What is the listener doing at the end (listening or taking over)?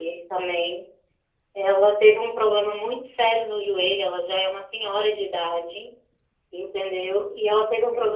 listening